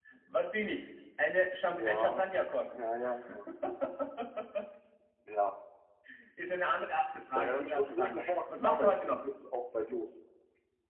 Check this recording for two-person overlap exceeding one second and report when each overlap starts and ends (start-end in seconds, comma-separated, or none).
7.3-9.1